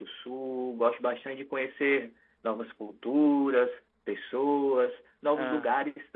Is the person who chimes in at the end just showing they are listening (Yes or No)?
Yes